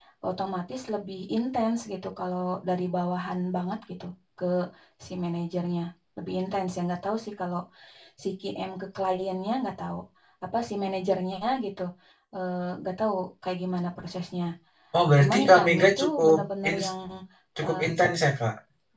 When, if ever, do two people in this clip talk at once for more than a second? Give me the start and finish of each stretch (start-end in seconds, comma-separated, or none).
15.2-16.9